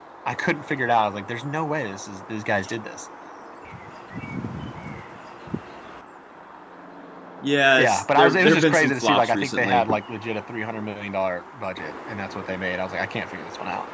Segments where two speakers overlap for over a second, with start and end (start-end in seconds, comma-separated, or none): 7.8-9.9